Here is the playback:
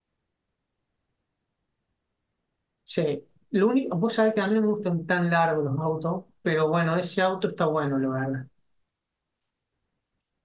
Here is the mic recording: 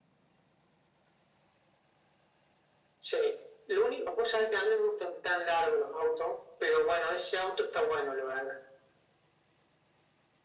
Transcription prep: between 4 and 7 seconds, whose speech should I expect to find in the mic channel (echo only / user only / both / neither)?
echo only